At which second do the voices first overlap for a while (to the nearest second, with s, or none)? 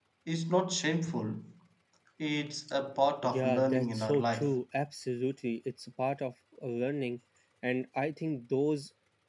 3 s